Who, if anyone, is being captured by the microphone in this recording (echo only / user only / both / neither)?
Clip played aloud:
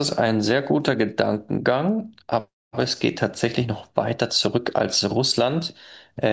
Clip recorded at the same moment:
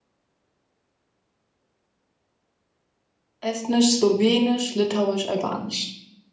user only